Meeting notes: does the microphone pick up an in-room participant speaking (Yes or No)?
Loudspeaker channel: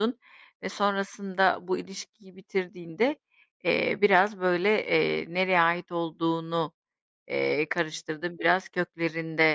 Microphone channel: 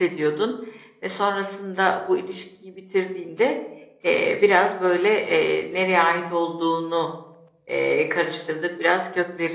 No